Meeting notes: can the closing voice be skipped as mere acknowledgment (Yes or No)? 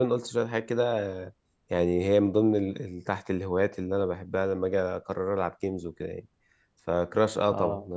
Yes